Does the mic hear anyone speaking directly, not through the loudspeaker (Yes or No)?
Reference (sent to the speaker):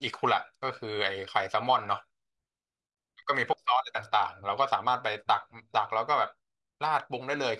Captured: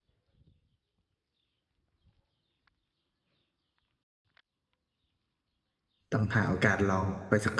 Yes